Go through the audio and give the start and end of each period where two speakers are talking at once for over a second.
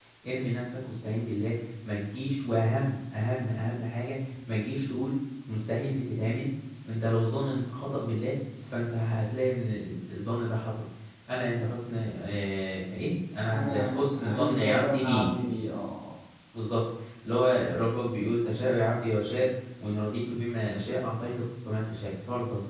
13.5-15.3

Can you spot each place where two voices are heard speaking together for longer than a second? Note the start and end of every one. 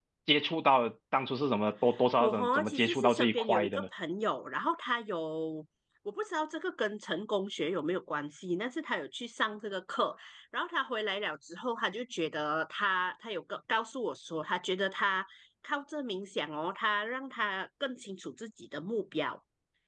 2.2-3.9

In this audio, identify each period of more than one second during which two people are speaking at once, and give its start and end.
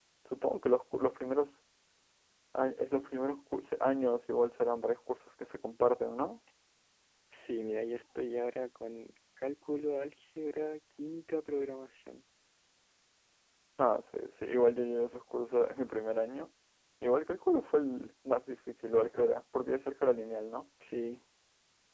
none

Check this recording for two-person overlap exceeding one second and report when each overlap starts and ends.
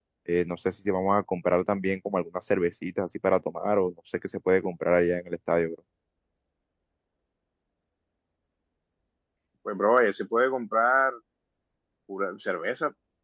none

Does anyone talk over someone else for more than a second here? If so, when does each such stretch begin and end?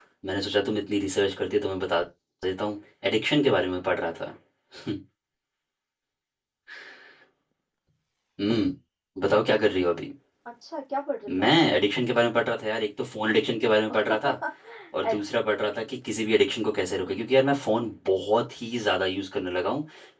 none

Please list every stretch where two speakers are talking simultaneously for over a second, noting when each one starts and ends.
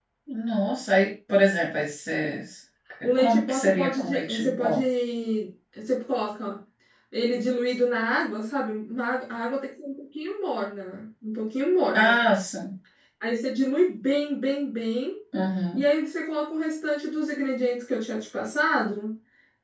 3.2-4.8

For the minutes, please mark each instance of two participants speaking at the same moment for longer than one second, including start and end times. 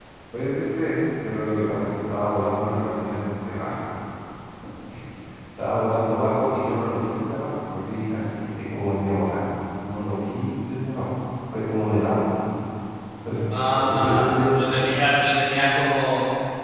13.8-15.1

